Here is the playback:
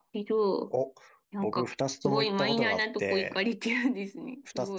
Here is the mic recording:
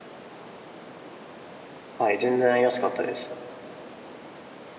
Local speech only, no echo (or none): ー。はい、全然安かったです。